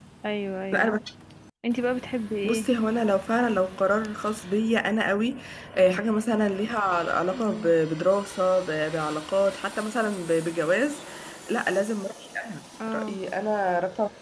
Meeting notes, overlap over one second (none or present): none